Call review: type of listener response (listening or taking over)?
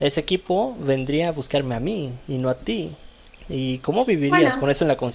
listening